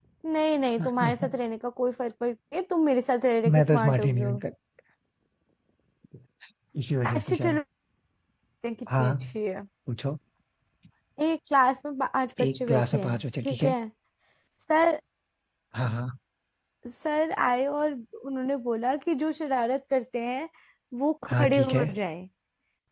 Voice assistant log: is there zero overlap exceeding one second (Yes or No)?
No